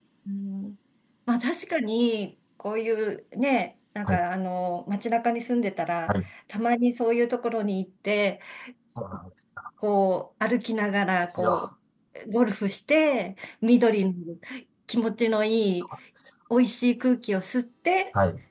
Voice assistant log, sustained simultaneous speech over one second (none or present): none